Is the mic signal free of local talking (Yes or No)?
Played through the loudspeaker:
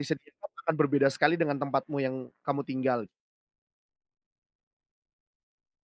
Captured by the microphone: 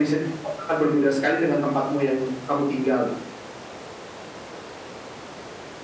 Yes